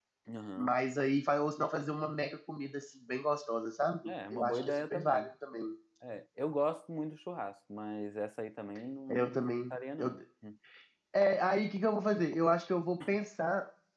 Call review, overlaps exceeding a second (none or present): present